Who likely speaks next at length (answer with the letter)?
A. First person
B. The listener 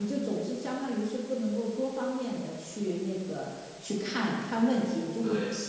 A